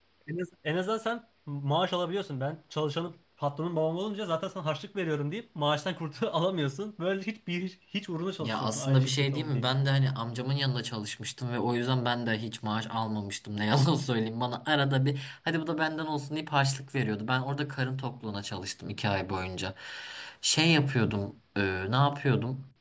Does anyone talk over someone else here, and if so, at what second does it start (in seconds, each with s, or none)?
8.4 s